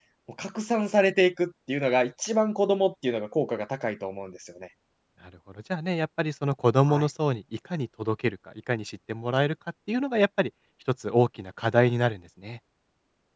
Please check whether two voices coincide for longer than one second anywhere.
No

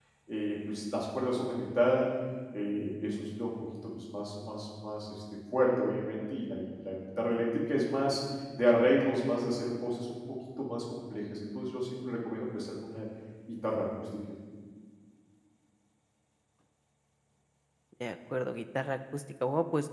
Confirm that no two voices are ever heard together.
Yes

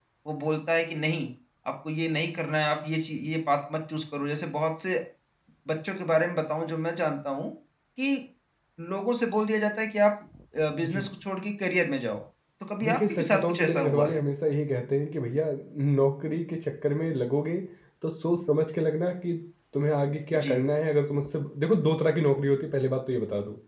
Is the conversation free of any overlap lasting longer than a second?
No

